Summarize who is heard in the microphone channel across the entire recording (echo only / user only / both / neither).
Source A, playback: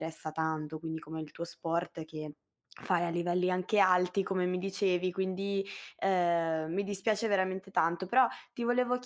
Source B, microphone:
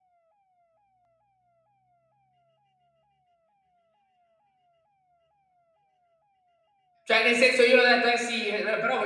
user only